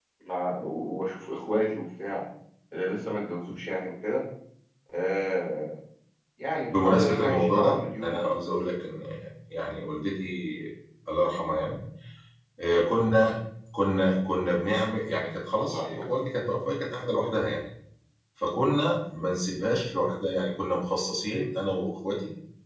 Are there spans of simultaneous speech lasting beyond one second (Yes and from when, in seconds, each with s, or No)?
Yes, from 6.7 s